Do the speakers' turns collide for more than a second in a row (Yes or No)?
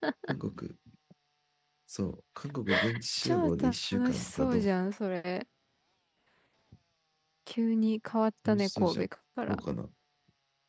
Yes